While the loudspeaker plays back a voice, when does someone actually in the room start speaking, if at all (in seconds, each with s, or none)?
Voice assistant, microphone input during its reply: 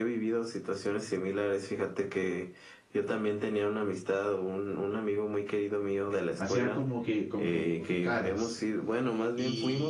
6.3 s